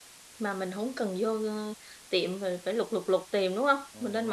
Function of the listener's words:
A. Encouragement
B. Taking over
B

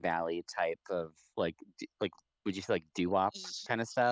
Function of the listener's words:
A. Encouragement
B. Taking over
B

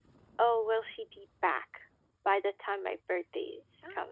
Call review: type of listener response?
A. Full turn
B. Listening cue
A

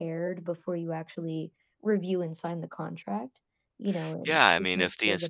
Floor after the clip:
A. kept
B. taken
B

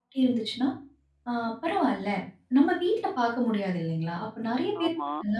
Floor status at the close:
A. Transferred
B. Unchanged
B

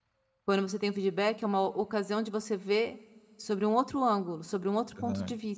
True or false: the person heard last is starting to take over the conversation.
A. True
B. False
A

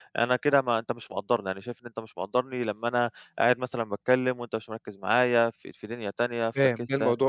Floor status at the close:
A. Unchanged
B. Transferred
B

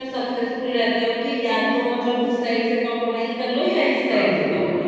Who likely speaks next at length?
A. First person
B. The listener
B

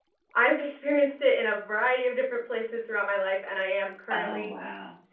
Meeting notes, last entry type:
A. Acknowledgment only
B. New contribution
A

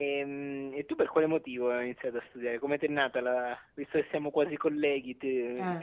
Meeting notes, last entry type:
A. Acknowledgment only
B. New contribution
A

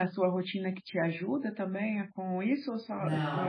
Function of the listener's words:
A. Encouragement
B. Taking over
B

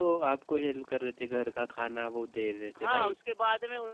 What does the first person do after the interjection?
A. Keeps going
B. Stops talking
B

